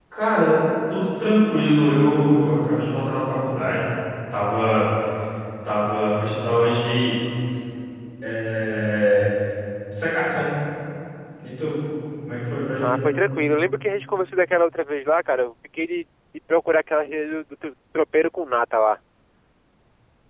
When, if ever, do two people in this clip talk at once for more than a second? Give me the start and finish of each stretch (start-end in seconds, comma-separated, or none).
none